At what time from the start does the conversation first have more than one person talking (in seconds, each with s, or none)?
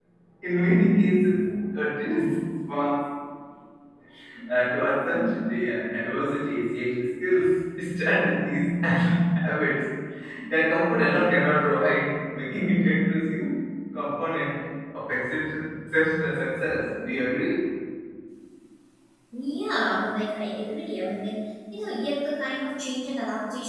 none